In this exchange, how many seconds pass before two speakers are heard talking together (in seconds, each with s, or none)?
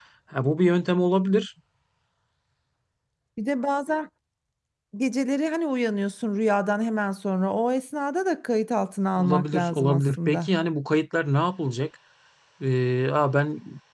9.2 s